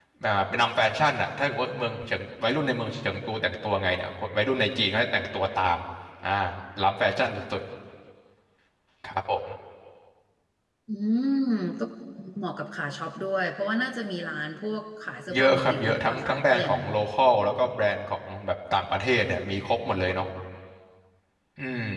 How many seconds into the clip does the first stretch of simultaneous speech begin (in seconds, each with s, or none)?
15.3 s